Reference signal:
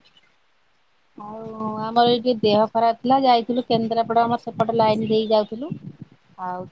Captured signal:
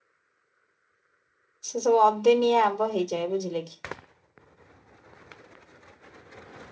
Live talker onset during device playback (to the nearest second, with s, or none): 2 s